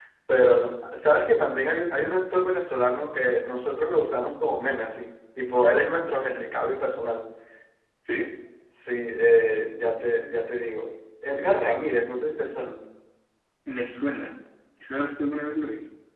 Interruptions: none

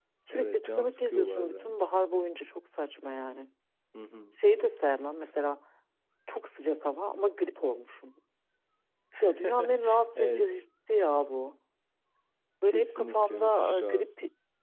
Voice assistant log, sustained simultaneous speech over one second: present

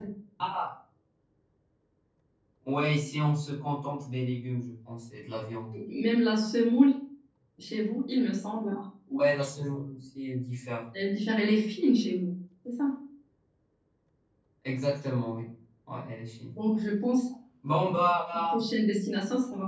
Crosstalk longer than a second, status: none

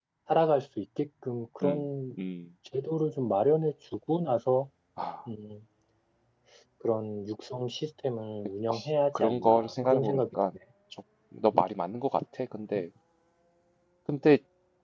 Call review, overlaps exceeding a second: present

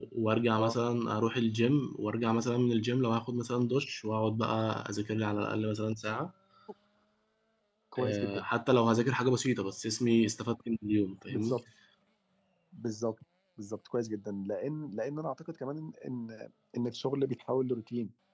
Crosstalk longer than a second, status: none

